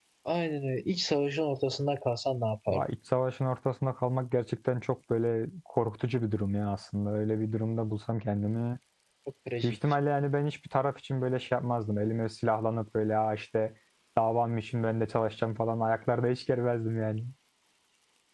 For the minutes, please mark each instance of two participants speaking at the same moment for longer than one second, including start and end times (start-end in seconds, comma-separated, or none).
none